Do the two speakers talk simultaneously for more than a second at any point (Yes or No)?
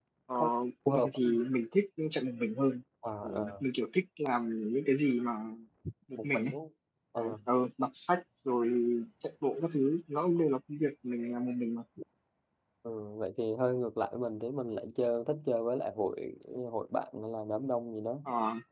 No